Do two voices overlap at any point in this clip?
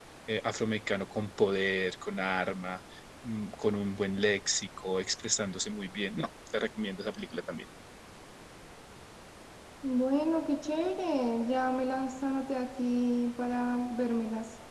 No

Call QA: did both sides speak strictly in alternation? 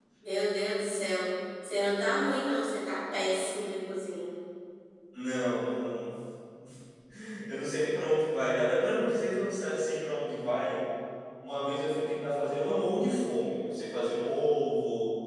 Yes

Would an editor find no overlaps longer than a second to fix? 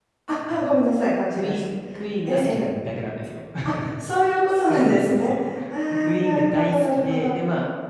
No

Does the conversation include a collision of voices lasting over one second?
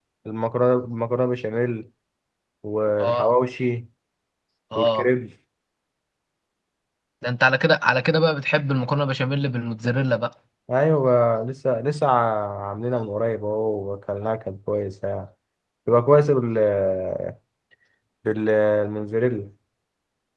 No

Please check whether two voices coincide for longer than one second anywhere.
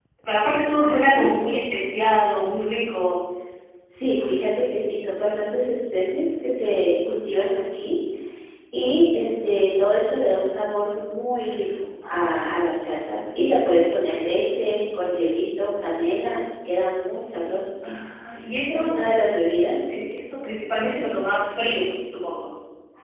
No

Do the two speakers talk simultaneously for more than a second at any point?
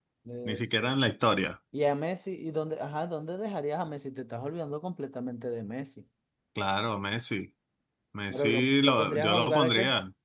Yes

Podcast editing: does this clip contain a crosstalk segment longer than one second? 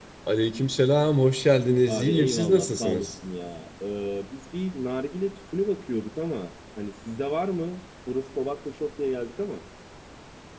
Yes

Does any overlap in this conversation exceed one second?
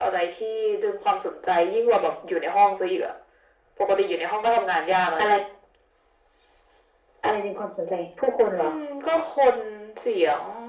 No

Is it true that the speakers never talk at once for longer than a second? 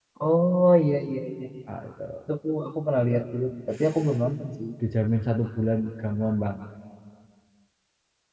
Yes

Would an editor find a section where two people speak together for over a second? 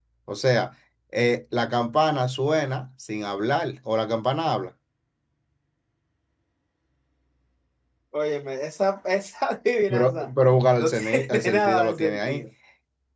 Yes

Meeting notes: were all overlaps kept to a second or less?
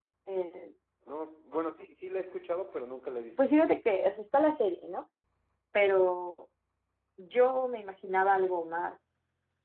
Yes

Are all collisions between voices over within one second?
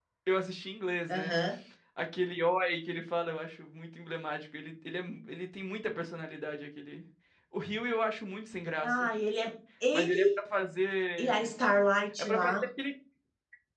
Yes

